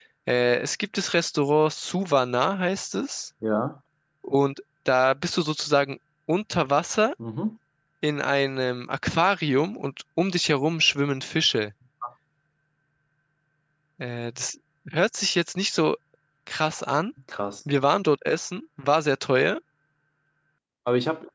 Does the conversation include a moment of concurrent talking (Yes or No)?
No